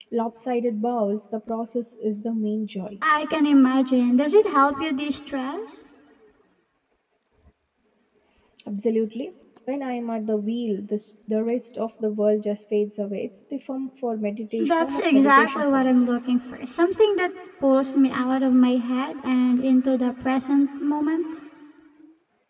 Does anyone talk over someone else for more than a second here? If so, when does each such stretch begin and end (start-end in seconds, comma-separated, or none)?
14.7-15.9